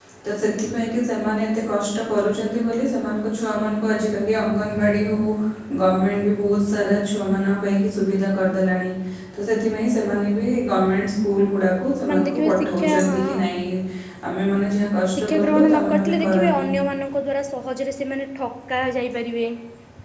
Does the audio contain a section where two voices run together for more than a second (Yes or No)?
Yes